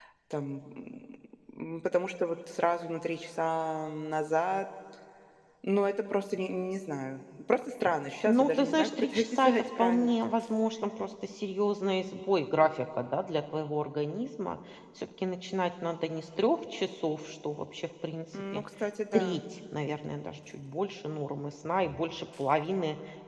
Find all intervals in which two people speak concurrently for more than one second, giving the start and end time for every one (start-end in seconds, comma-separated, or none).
8.3-10.3